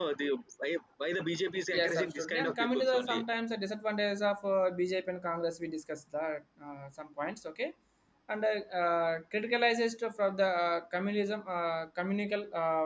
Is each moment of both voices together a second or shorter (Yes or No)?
No